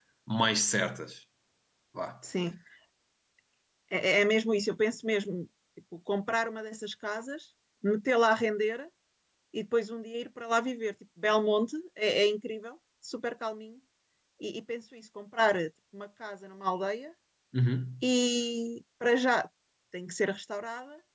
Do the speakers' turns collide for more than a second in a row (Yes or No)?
No